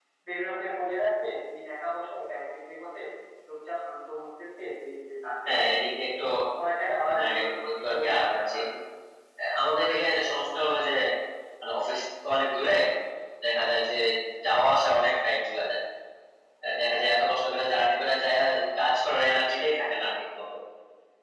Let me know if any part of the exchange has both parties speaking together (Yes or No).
Yes